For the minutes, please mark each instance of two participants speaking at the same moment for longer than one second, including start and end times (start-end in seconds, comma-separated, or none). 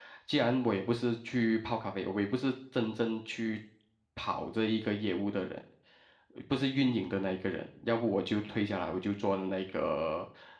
none